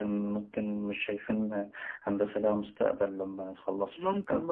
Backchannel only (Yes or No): No